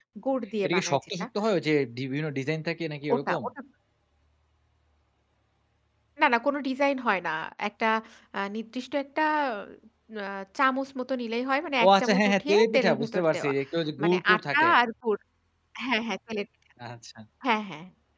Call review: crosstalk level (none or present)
present